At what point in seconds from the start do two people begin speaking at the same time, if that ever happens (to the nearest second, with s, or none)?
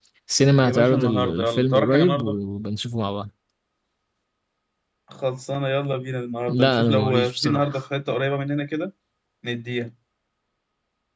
1 s